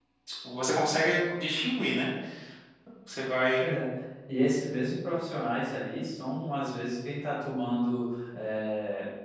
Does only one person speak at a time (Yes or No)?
Yes